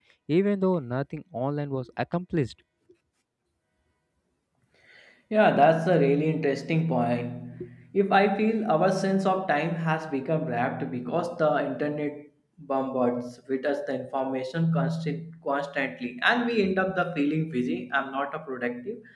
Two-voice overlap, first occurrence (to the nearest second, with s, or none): none